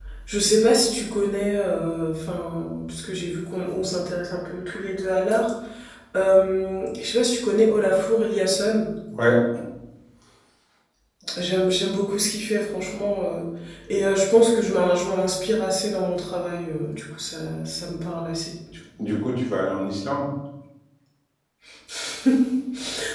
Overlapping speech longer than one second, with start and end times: none

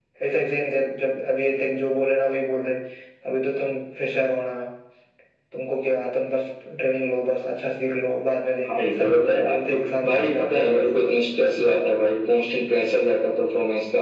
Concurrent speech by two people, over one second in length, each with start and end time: 8.7-10.8

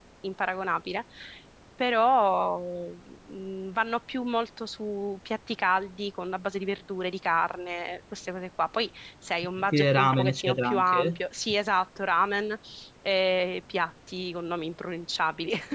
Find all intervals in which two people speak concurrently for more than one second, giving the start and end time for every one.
9.7-11.2

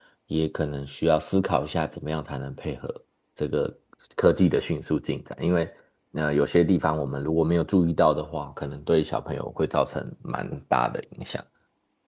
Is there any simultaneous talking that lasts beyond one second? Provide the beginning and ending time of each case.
none

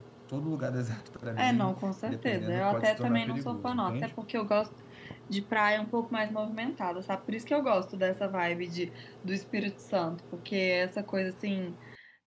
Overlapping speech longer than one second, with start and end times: 1.4-4.2

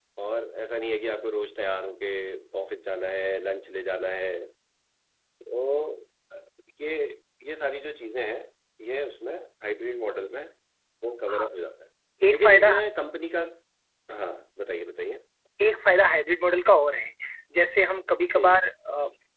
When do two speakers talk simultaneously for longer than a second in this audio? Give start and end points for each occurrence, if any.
none

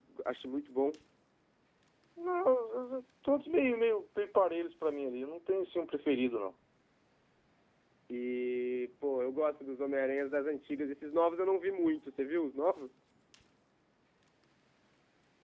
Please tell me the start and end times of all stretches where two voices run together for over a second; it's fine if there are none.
none

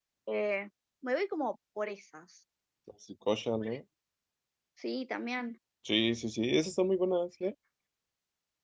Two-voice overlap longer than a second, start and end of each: none

